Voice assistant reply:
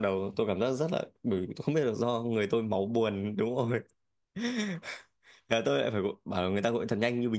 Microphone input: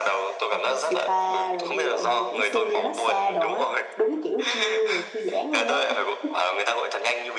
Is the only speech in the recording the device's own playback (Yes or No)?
No